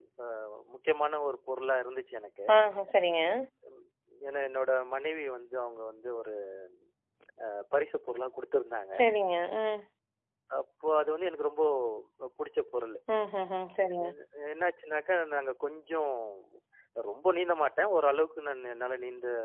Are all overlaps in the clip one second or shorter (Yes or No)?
Yes